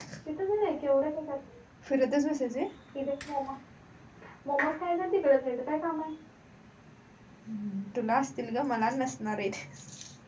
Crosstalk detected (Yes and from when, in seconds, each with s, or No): No